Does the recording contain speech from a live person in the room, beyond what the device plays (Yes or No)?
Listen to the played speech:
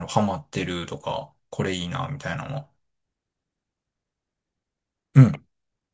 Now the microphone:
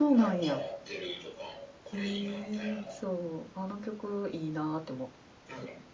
Yes